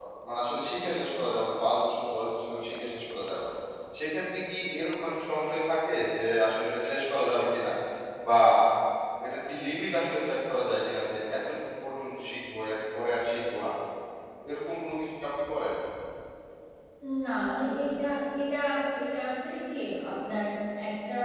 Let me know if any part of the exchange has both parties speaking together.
No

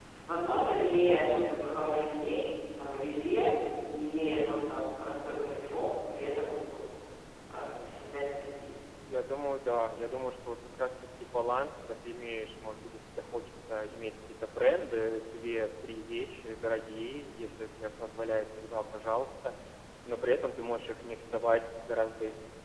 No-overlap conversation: Yes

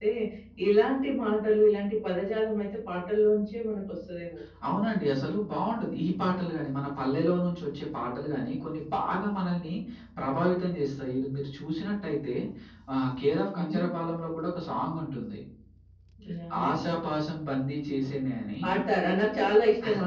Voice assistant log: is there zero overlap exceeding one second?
Yes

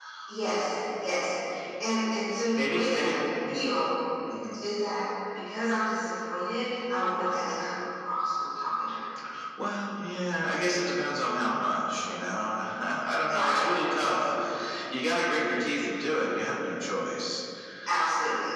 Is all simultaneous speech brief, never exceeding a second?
Yes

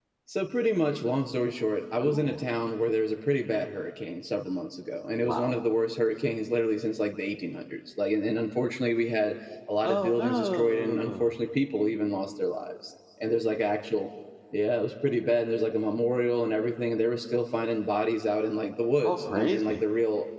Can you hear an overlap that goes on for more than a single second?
Yes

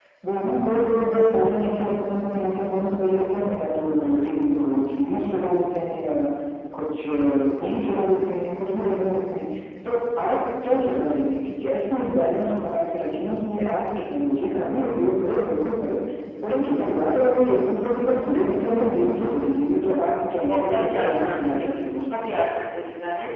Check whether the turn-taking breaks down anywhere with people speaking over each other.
Yes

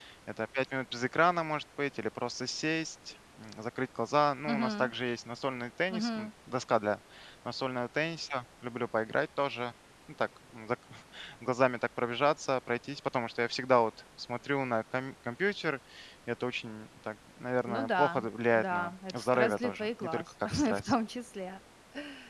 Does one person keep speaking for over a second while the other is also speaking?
Yes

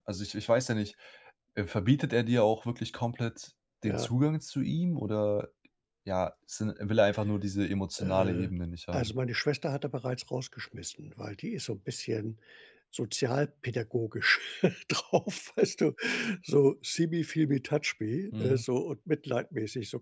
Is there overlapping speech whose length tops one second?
No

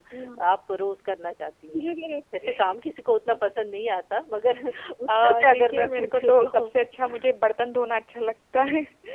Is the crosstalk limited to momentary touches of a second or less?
No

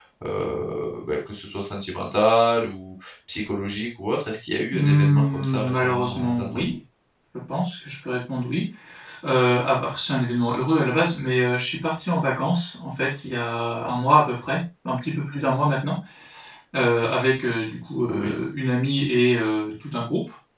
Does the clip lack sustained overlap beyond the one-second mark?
No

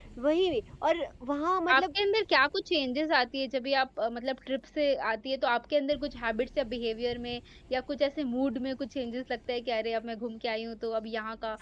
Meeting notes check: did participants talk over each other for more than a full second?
No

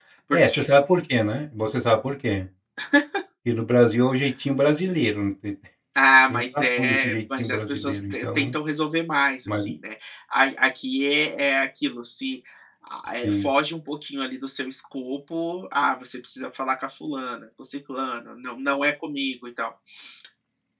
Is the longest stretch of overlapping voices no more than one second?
No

